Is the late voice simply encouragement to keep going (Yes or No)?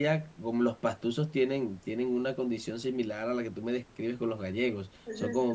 Yes